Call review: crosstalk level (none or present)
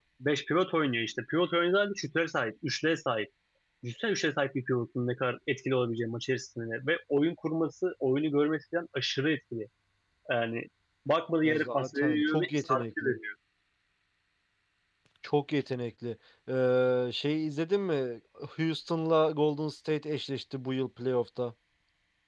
present